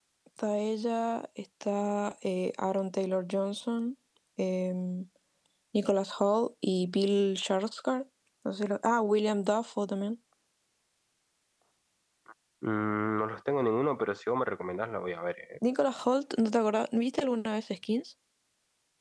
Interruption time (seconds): none

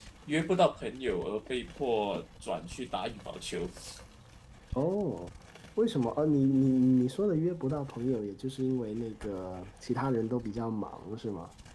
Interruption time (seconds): none

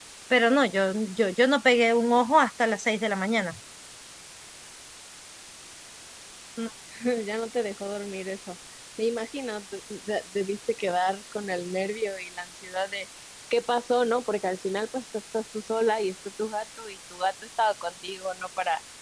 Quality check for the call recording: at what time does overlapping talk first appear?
none

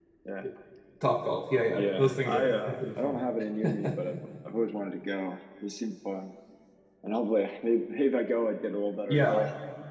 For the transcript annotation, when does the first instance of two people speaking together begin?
1.8 s

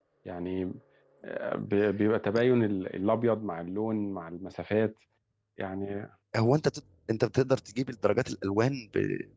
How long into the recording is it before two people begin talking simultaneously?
none

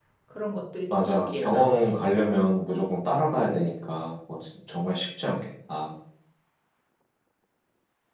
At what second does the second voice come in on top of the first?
0.9 s

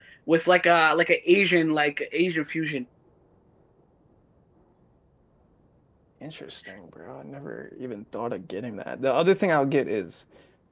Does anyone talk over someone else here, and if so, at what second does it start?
none

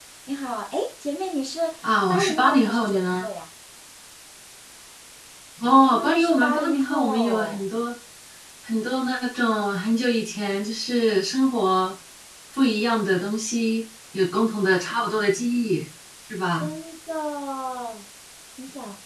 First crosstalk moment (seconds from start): 2.1 s

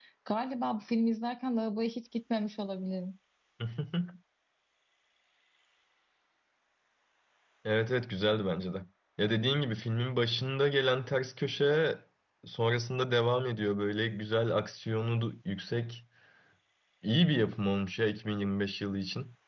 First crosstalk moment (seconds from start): none

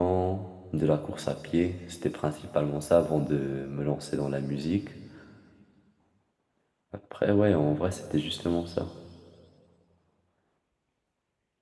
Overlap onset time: none

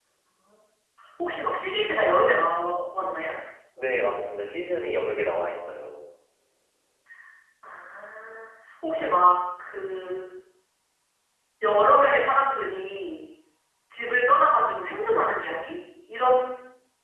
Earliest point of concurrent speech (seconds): none

